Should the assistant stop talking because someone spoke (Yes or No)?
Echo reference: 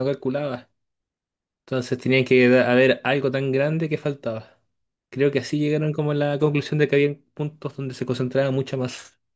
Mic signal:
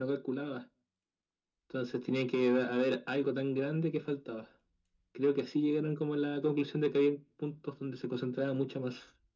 No